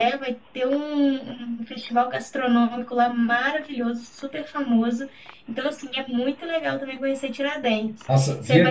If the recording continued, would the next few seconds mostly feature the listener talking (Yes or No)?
Yes